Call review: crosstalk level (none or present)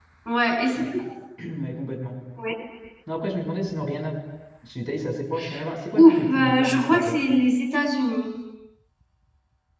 present